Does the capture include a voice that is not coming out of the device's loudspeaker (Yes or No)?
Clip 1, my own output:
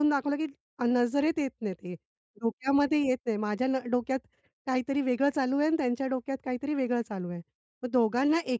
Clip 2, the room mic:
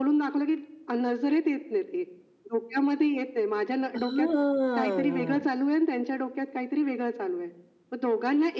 Yes